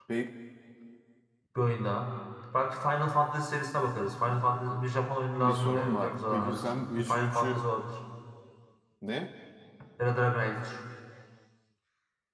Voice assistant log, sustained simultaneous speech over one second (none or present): present